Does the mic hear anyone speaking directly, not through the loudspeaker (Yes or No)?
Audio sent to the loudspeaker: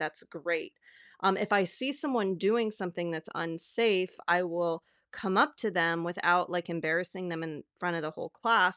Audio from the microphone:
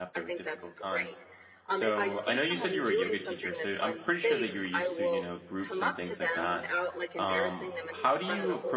Yes